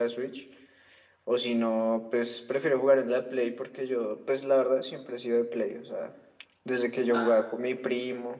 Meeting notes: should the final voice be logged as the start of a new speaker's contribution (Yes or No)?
No